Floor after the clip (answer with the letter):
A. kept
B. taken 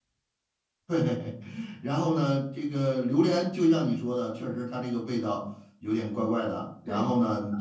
B